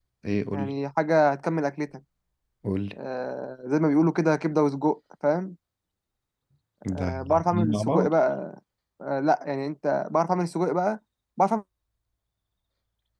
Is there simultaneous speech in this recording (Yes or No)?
Yes